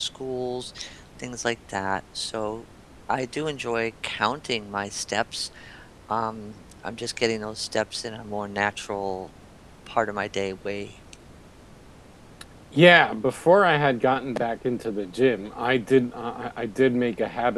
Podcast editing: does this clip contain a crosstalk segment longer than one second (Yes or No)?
No